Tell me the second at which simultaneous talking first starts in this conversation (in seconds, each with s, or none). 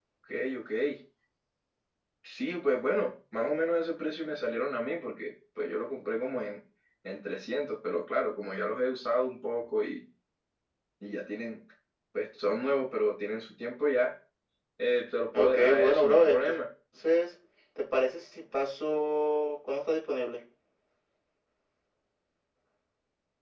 15.3 s